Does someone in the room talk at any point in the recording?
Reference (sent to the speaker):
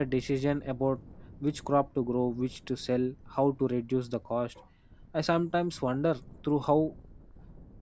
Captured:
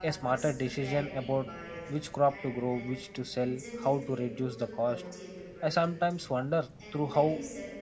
Yes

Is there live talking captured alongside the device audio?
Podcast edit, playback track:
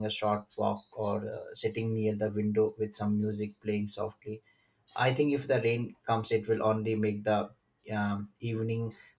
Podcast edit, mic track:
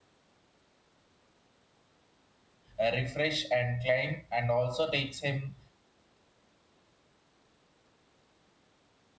Yes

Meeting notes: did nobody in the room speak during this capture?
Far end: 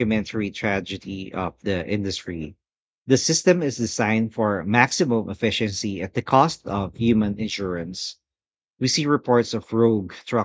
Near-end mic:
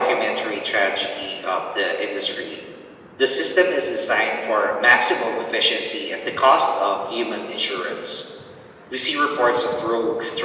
Yes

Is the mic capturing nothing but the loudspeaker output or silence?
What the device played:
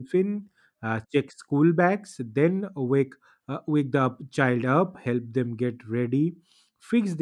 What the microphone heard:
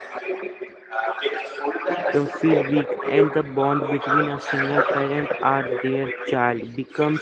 No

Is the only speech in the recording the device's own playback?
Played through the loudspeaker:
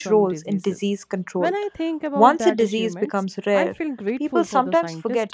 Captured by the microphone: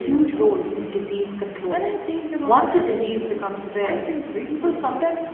Yes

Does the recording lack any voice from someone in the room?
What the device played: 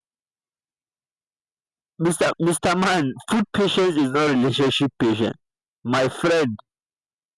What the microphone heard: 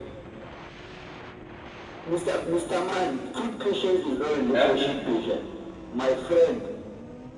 No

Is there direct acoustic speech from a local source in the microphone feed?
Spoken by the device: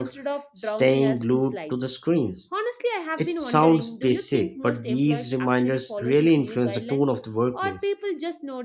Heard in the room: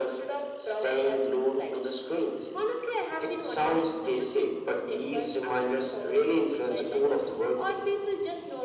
No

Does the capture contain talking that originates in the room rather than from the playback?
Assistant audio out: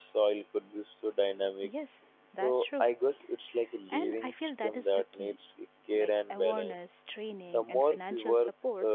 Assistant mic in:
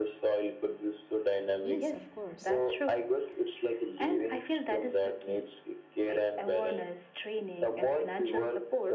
Yes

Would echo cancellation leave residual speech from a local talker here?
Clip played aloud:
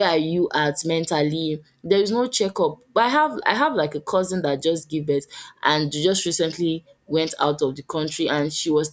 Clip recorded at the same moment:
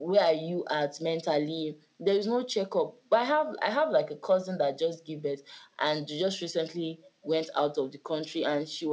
No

